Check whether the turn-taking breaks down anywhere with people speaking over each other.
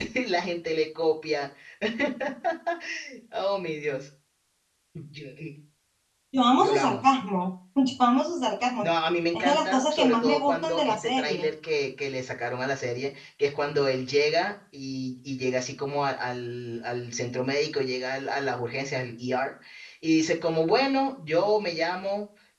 Yes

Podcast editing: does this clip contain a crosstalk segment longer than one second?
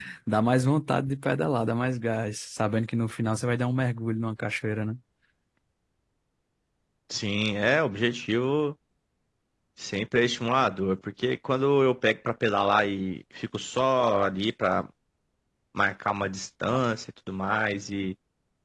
No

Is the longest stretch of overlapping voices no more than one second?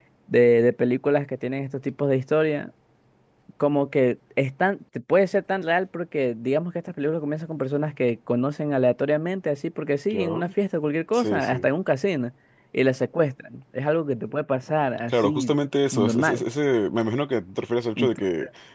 Yes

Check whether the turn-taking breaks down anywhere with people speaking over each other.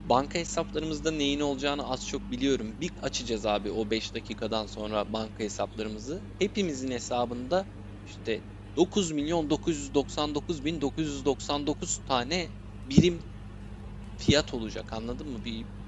No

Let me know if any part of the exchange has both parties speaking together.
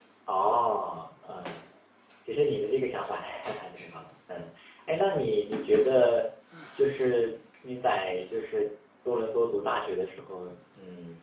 No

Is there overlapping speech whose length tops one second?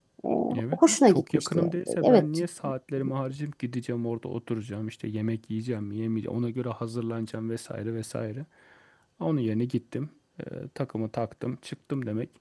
Yes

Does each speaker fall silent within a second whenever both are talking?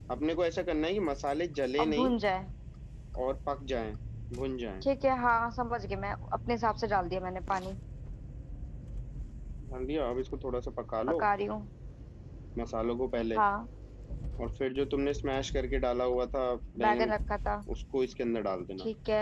Yes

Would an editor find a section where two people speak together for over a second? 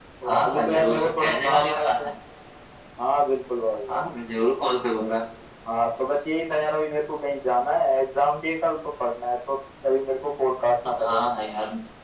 Yes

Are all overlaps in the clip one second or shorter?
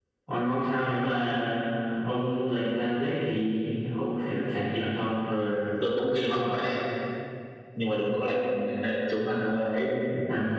Yes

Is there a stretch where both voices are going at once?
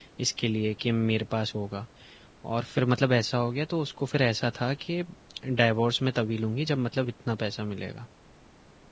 No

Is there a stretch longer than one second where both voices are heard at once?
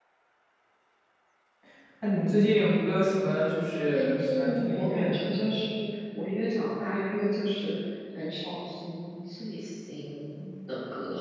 Yes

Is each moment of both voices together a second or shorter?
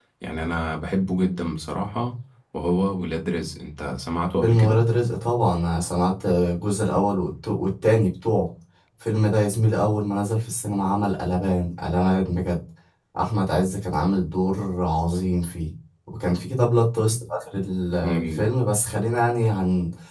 Yes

